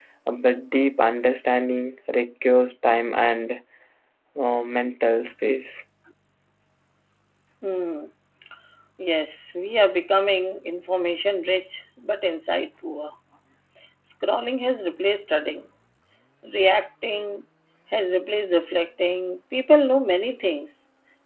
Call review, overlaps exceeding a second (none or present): none